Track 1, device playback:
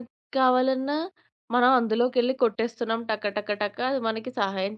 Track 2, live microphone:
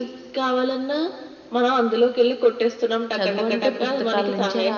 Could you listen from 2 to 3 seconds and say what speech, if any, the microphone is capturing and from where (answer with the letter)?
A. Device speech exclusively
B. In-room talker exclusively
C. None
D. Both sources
A